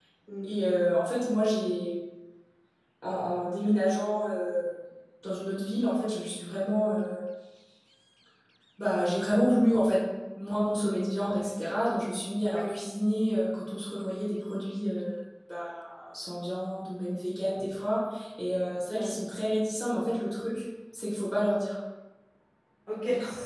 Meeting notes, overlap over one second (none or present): none